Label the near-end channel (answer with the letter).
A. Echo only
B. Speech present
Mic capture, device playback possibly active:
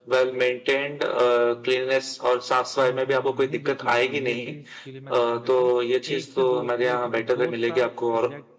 B